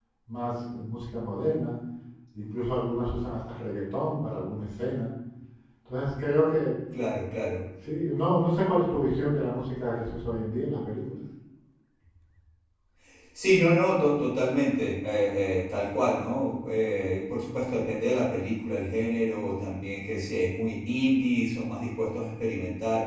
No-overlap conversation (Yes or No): Yes